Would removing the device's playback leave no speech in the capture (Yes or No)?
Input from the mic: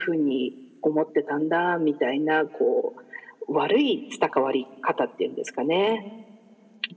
Yes